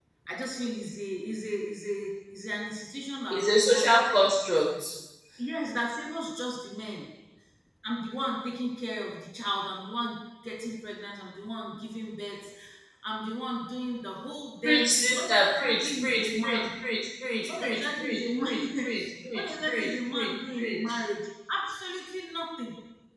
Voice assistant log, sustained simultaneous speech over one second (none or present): present